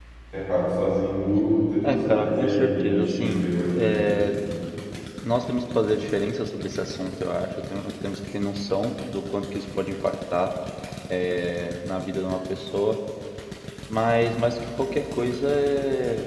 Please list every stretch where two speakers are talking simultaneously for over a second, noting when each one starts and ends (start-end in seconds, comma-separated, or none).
1.8-4.1